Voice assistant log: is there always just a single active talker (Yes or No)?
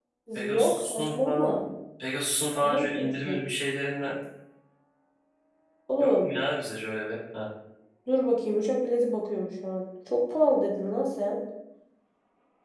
No